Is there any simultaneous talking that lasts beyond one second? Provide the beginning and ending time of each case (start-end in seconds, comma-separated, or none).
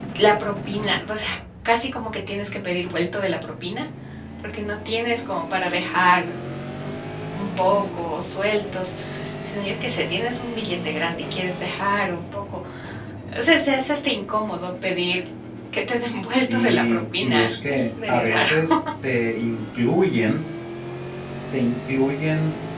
16.3-18.5